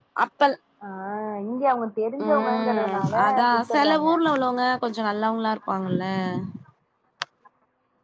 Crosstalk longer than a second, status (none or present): present